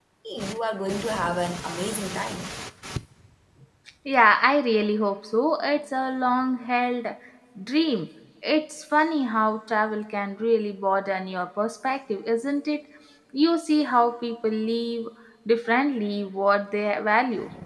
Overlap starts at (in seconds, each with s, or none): none